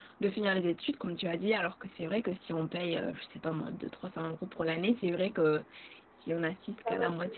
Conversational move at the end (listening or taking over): taking over